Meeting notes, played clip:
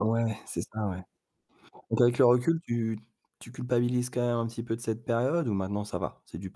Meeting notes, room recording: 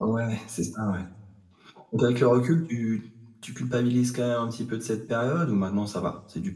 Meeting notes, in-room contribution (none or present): none